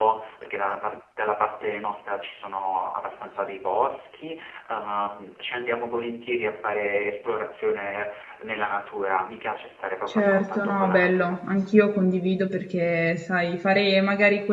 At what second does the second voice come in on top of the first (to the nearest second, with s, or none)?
10 s